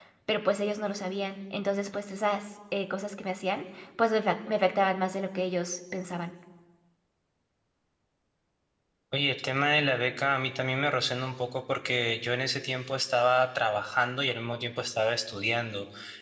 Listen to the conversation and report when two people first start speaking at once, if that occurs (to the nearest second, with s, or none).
none